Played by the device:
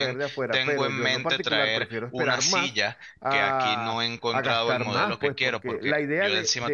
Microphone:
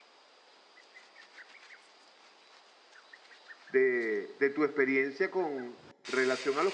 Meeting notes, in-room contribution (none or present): present